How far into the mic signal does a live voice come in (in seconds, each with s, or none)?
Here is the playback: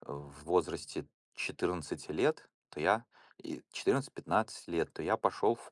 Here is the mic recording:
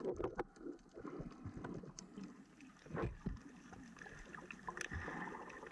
none